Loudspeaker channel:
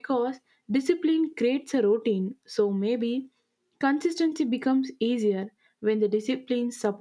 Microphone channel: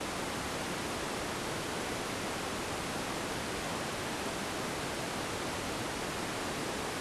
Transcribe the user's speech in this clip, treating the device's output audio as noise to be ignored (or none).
none